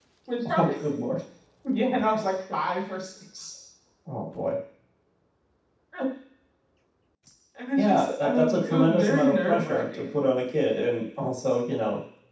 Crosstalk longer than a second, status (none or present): present